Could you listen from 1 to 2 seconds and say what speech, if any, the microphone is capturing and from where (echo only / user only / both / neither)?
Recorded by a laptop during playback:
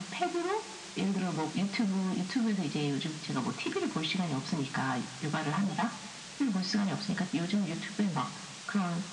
echo only